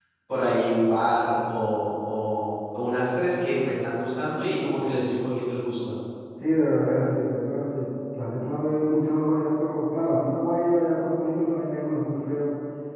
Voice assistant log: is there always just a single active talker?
Yes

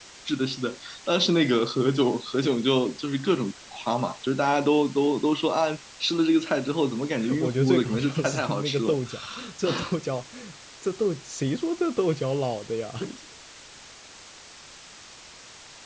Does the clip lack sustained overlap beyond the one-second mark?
No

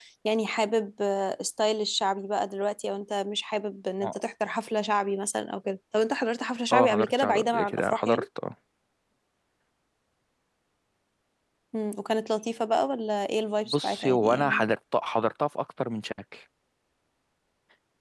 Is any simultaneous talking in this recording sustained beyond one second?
Yes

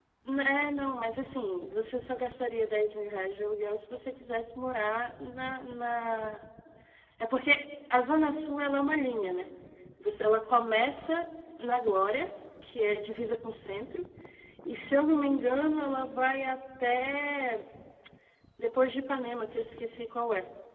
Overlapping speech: No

